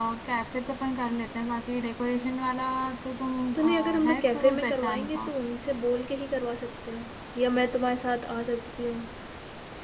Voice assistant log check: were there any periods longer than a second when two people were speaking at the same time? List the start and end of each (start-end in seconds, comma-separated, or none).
3.5-5.2